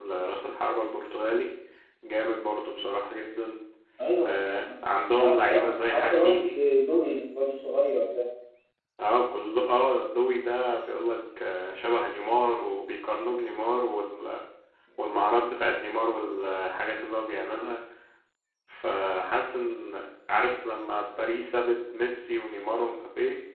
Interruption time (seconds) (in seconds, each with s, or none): 5.1 s